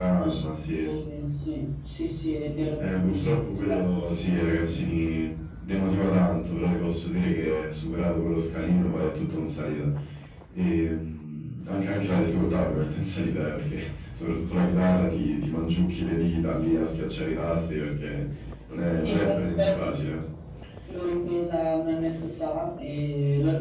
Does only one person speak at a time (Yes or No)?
No